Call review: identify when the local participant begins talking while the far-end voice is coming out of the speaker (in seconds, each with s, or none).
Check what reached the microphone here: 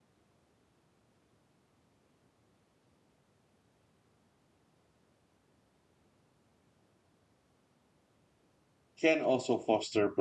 9.0 s